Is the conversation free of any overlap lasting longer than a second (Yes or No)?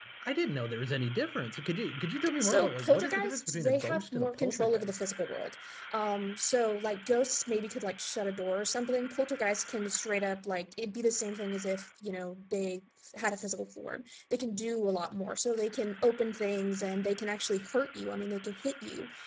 No